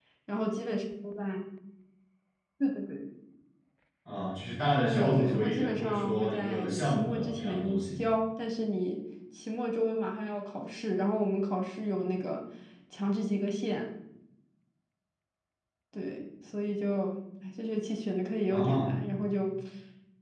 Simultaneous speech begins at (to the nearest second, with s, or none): 5 s